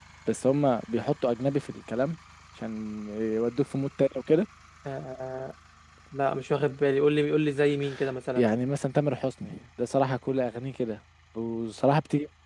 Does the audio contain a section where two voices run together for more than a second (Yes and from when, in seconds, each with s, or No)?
No